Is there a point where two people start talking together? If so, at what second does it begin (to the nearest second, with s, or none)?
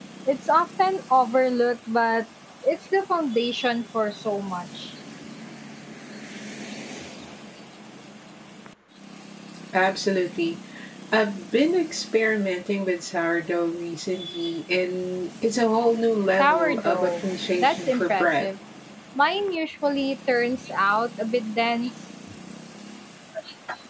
16 s